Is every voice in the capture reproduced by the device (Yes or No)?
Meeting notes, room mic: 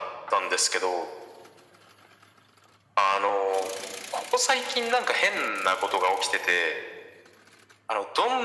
Yes